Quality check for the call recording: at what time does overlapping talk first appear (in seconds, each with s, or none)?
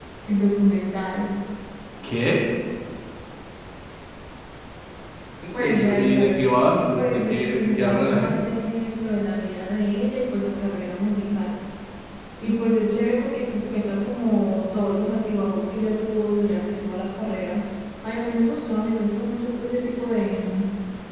5.5 s